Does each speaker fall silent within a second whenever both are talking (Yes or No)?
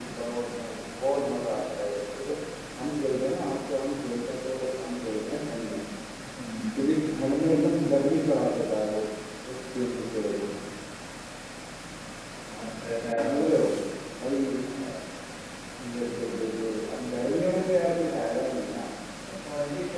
Yes